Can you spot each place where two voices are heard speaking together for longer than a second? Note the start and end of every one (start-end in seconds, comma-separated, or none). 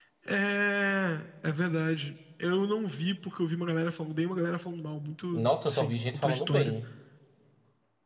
5.3-6.7